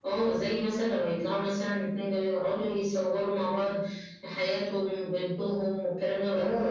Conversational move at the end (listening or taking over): taking over